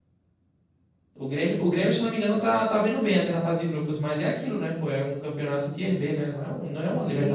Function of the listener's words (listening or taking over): taking over